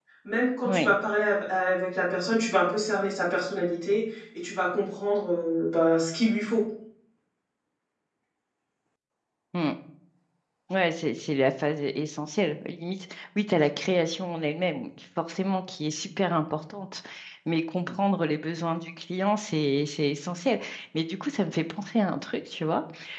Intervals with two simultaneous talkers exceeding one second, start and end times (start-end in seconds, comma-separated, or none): none